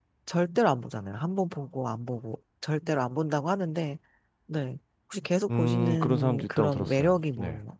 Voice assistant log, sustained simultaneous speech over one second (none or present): present